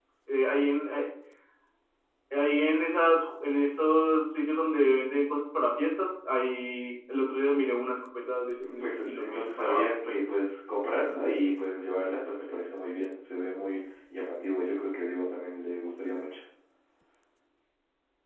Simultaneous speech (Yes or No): Yes